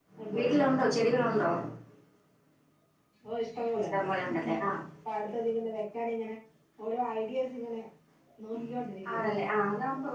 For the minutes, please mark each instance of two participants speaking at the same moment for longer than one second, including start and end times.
none

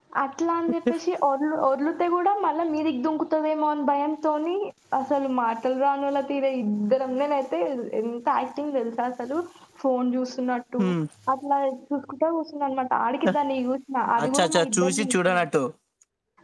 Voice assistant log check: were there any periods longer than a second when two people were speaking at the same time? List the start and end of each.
14.2-15.4

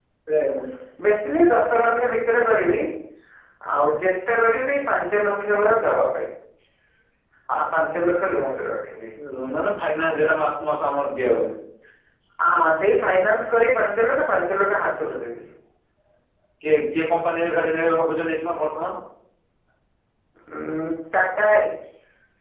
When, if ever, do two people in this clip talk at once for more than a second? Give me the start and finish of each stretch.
none

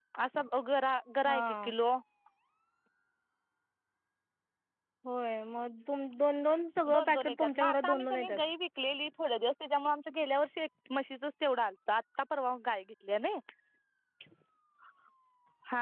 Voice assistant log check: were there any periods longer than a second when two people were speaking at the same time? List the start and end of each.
7.0-8.4

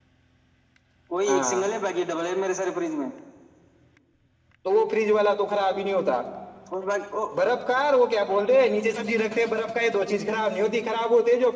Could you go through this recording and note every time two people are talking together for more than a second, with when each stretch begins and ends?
none

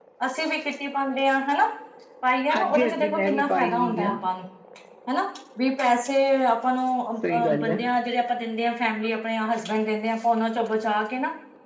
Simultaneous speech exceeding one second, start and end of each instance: 2.5-4.1

